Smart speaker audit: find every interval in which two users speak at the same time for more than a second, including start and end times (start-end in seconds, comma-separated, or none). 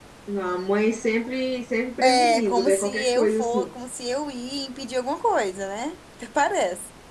2.2-3.8